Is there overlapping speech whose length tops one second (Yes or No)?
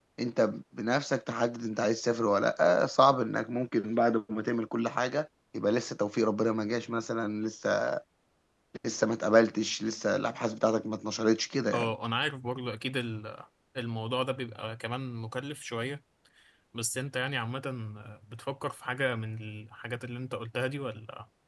No